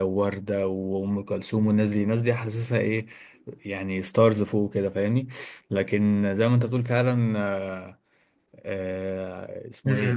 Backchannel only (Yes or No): No